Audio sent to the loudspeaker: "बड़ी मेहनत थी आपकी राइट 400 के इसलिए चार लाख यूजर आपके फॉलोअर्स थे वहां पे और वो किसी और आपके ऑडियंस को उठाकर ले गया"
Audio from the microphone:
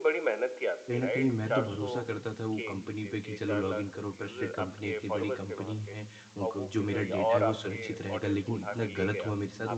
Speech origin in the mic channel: both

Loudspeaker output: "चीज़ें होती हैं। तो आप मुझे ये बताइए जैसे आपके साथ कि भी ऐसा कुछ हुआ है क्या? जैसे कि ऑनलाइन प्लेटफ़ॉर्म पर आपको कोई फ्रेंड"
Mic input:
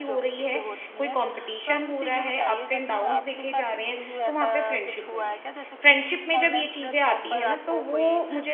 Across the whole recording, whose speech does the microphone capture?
both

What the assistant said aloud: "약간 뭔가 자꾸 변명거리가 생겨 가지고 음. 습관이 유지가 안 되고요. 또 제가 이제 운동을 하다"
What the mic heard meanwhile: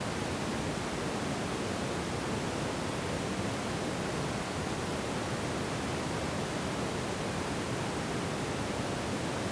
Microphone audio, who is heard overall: neither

